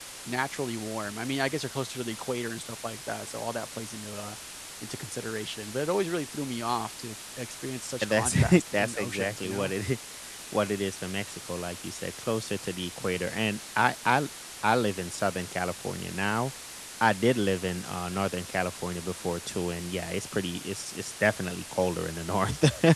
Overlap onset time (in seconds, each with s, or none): 8.0 s